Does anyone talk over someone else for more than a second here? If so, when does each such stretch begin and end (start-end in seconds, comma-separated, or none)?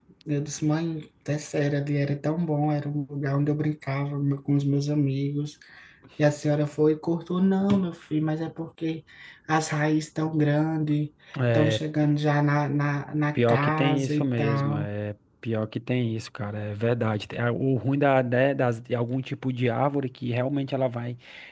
13.3-14.9